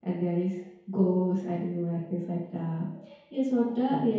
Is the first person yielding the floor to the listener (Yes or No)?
No